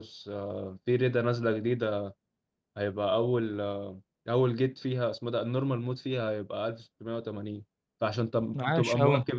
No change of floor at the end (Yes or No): Yes